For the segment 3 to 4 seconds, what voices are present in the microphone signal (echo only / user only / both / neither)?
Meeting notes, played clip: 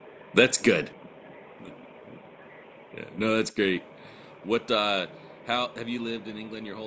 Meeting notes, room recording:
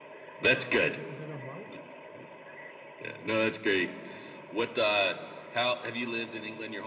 echo only